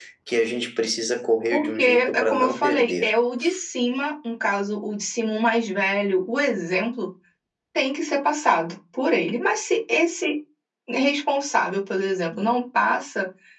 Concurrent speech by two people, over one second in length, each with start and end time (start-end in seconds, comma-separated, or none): 1.5-3.1